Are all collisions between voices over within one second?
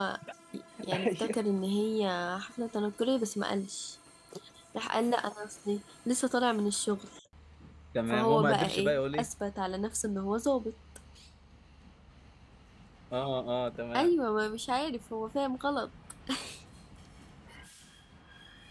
No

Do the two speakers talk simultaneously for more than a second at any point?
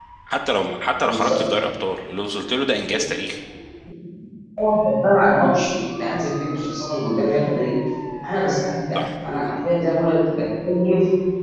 No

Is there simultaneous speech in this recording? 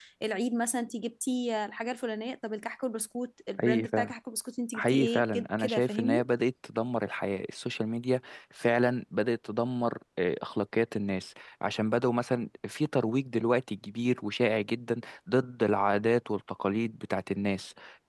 Yes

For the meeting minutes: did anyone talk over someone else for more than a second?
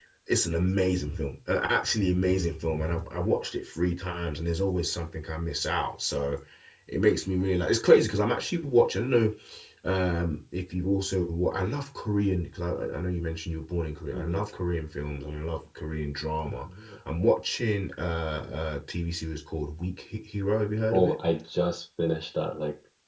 No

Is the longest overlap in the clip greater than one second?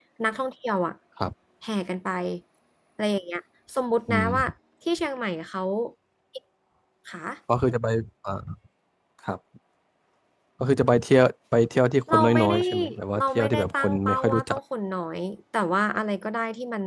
Yes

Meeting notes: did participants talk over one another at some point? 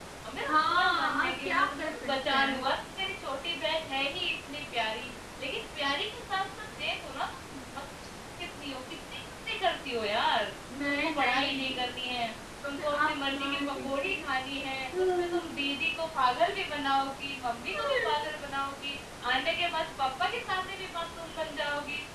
Yes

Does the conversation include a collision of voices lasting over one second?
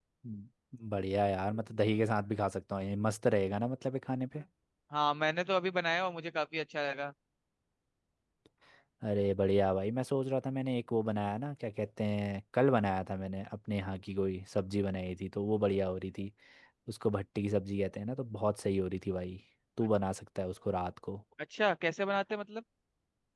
No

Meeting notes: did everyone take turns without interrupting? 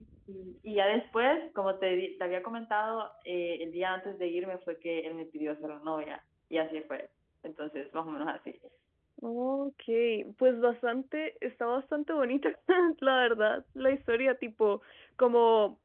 Yes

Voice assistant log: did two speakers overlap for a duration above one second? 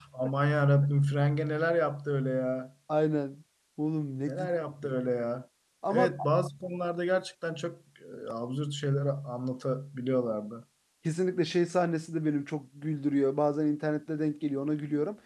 No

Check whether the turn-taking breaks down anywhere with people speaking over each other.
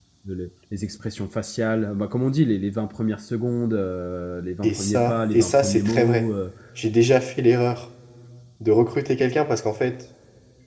Yes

